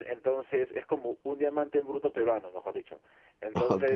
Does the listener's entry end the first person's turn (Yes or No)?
No